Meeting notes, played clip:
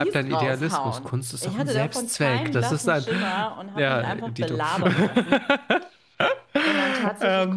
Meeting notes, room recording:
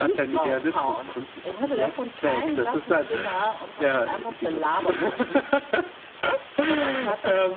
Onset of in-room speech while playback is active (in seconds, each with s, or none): none